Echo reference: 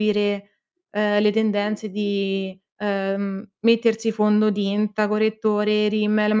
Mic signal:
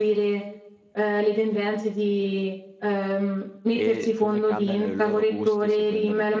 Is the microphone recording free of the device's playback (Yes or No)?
No